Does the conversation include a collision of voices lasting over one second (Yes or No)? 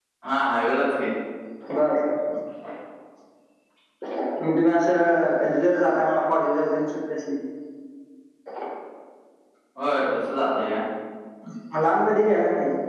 No